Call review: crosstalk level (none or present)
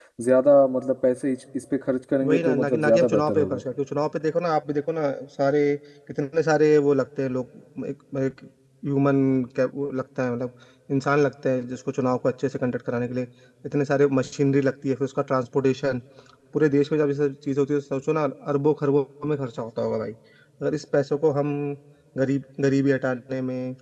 present